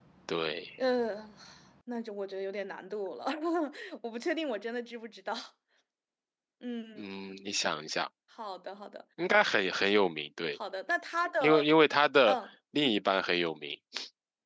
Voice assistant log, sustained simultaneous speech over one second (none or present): none